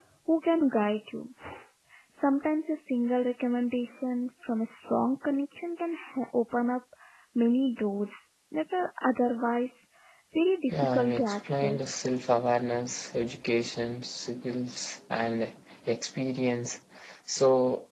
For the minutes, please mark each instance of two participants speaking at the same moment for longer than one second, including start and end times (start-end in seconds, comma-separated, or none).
10.7-12.0